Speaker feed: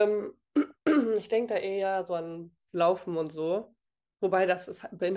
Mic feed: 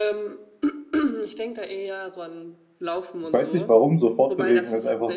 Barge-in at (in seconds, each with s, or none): 3.2 s